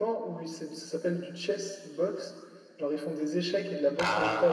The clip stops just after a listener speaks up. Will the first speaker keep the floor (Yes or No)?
Yes